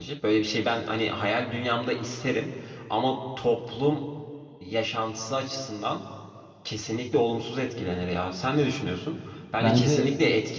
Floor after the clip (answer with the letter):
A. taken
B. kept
B